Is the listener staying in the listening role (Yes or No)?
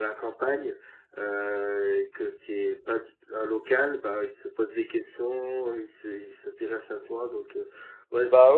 No